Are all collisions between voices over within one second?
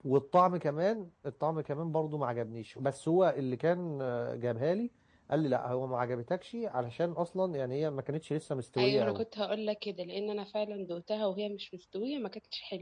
Yes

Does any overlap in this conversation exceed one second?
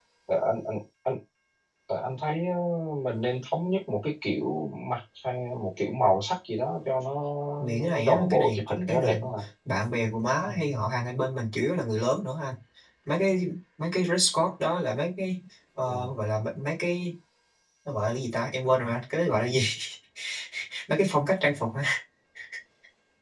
Yes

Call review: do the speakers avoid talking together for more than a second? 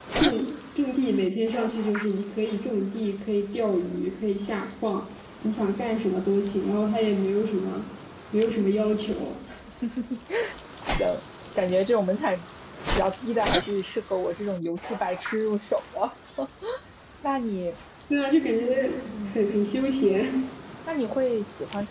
Yes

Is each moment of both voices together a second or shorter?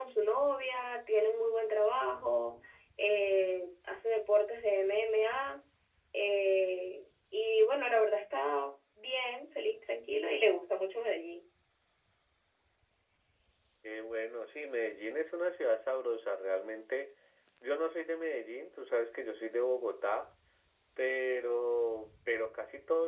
Yes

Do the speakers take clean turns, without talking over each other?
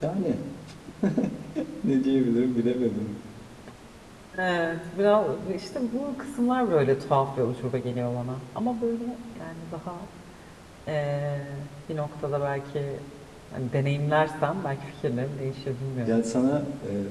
Yes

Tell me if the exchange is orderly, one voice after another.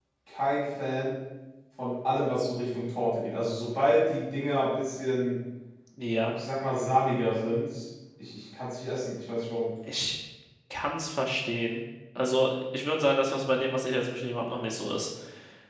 Yes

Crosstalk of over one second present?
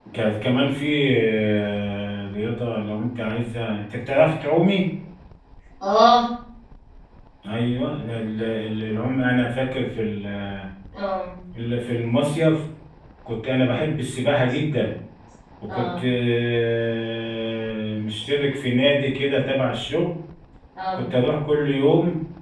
No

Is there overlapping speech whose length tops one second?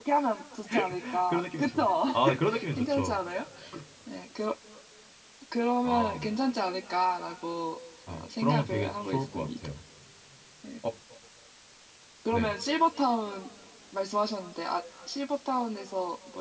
Yes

